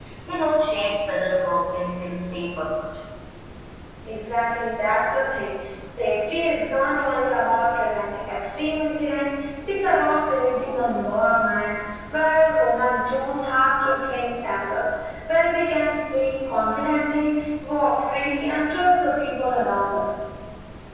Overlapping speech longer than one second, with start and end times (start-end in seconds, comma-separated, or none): none